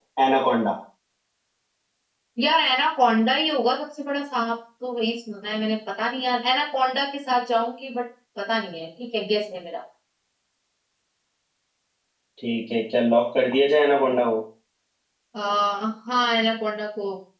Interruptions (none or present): none